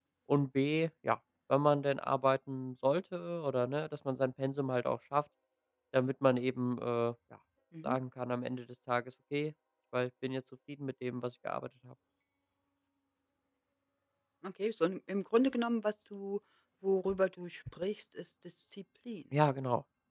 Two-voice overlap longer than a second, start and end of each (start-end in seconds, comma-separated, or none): none